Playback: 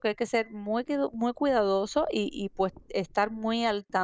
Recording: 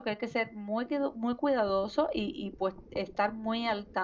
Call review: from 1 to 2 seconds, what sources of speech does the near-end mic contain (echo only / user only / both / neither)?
echo only